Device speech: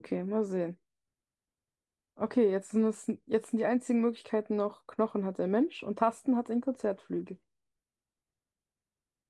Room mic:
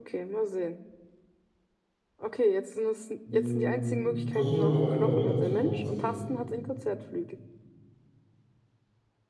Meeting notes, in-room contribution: present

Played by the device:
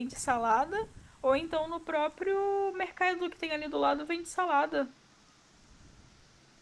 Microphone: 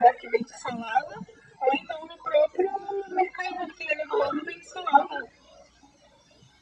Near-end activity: none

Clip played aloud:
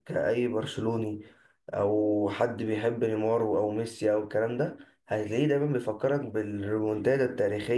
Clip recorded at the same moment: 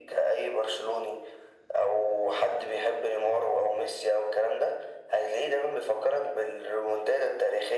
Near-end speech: none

